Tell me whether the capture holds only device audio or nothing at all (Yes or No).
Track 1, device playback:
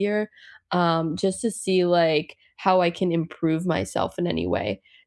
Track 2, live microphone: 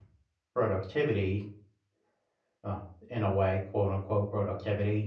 No